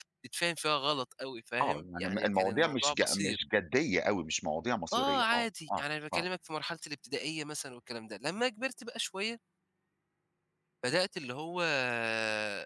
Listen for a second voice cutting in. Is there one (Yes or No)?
Yes